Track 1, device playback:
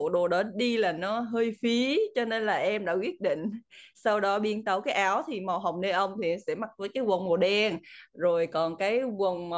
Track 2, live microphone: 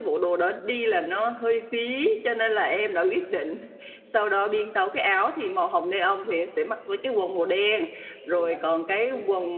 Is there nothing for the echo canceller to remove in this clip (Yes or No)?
No